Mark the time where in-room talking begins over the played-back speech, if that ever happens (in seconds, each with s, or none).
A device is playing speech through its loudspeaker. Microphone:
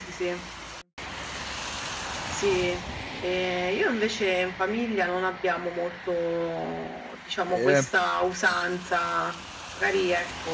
7.5 s